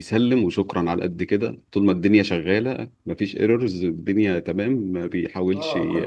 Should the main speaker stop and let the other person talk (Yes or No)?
Yes